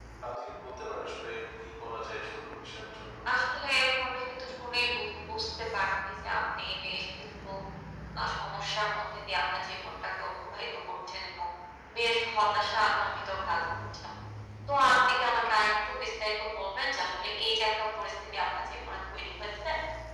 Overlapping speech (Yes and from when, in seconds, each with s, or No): No